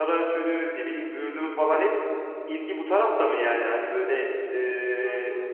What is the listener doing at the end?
listening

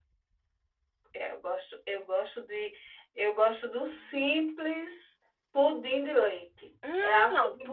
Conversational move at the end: taking over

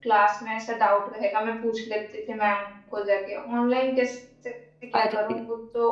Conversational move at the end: listening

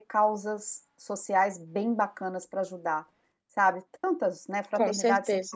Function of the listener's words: listening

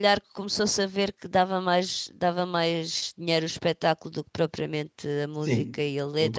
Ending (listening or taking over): taking over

